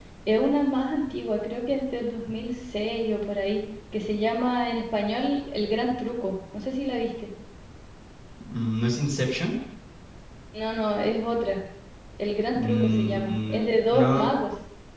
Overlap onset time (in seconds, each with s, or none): 12.5 s